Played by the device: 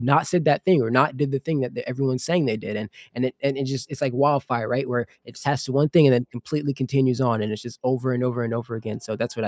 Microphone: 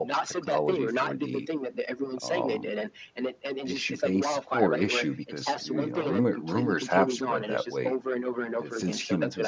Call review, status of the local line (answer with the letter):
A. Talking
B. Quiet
A